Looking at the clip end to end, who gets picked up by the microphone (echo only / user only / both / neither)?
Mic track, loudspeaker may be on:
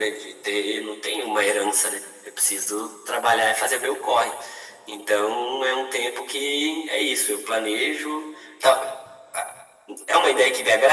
echo only